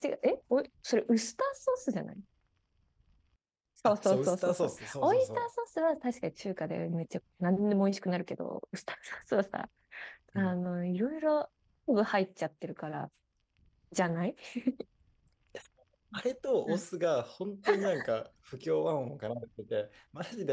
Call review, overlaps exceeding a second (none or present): present